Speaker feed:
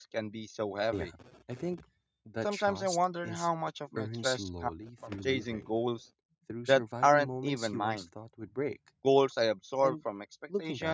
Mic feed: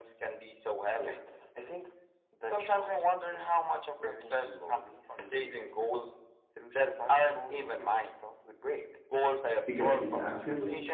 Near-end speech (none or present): present